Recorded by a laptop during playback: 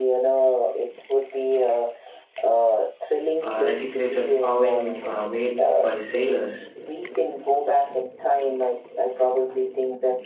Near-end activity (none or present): present